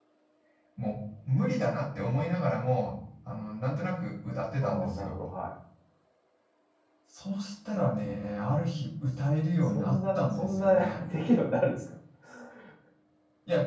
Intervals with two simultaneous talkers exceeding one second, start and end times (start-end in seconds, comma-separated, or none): 9.7-11.0